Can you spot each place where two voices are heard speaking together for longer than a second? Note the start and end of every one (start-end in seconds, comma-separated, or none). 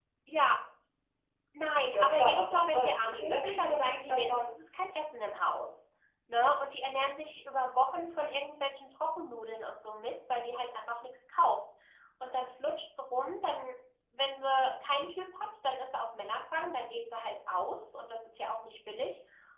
1.9-4.5